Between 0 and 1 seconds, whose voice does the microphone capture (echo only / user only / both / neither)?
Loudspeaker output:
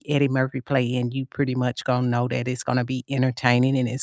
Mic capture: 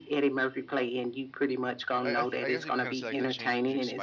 echo only